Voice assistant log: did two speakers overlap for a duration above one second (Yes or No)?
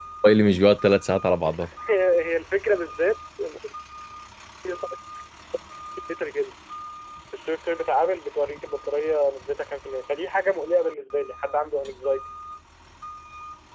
No